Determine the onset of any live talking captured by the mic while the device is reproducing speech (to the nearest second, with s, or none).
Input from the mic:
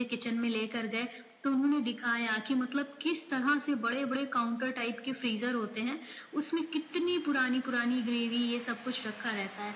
none